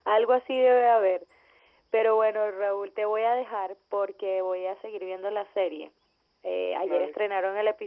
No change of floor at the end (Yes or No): Yes